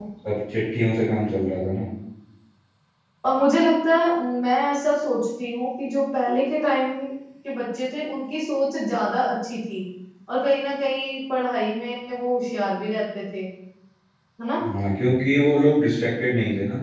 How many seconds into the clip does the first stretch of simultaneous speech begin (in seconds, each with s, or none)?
none